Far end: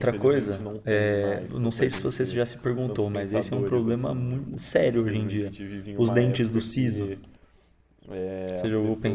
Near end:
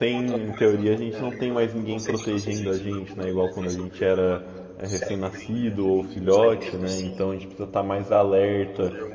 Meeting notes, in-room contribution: present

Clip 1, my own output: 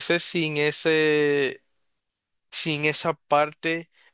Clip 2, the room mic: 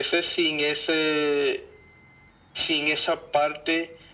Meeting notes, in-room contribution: none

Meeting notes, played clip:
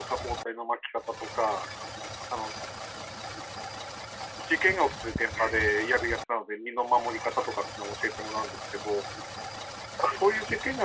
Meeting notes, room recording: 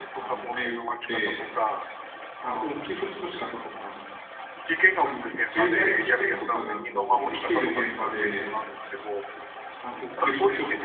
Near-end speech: present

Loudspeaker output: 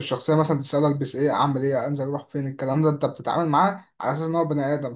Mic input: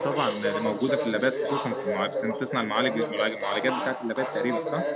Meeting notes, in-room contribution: present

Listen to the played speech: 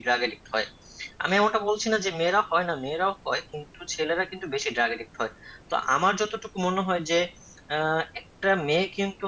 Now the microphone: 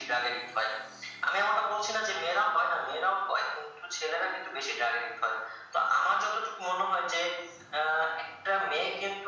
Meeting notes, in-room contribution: none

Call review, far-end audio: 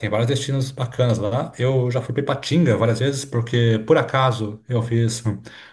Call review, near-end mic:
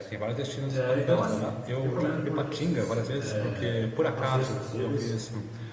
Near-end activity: present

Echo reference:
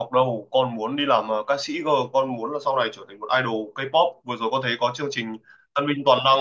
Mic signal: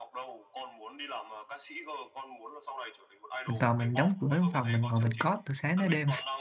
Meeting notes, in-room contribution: present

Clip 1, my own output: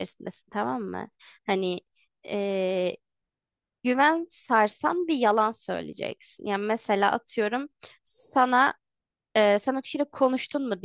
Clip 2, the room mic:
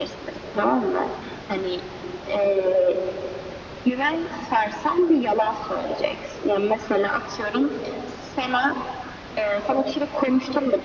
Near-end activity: none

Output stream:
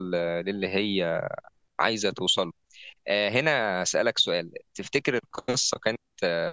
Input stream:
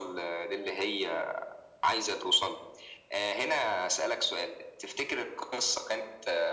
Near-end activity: none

